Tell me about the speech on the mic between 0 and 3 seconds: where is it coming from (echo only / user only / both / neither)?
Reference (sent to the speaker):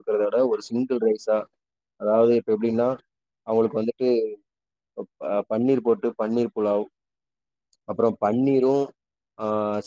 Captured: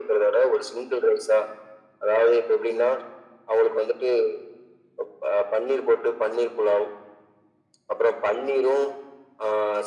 echo only